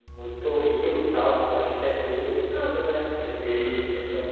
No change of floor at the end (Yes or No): No